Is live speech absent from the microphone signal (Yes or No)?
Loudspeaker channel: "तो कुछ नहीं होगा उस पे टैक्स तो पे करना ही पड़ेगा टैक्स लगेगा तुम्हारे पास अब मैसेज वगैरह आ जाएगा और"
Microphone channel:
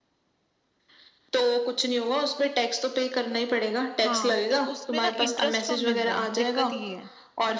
No